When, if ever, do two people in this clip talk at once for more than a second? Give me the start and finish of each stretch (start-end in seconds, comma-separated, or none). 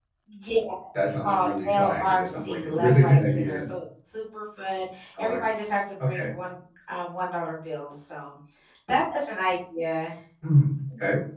1.0-3.6